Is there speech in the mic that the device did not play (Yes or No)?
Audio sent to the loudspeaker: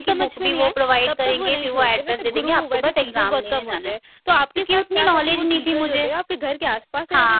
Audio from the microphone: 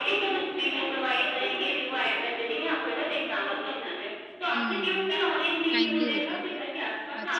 Yes